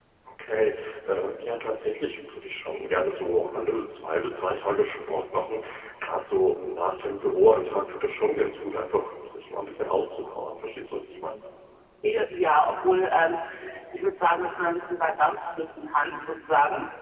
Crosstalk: none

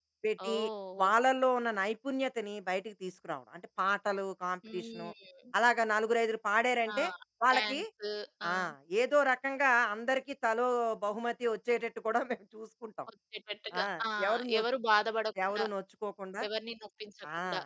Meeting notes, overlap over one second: none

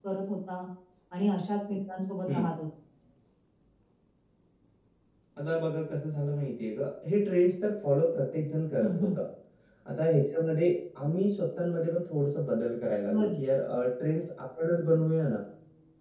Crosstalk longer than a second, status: none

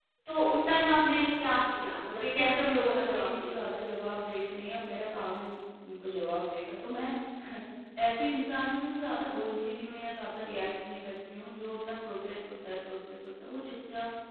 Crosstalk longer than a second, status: present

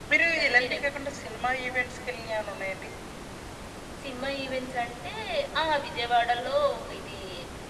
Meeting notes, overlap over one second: none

